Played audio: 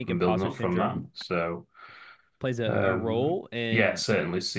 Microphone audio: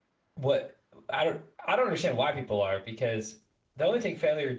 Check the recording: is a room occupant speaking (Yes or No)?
Yes